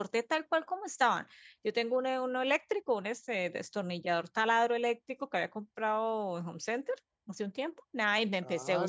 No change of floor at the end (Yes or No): No